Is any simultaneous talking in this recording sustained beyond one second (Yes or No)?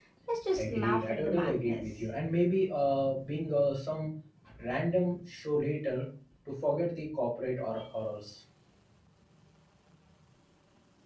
Yes